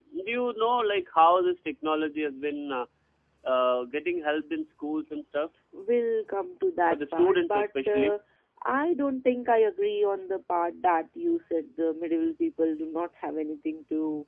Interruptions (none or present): present